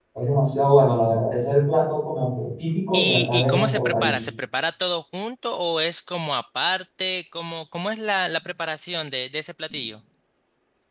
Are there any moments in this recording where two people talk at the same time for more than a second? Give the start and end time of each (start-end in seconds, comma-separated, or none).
2.9-4.2